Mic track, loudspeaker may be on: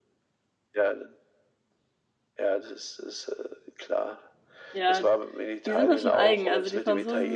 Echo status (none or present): present